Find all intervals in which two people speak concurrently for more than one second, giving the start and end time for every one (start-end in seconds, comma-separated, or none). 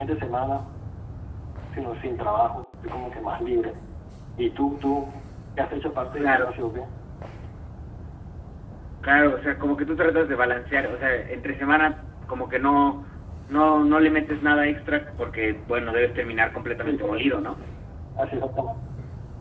none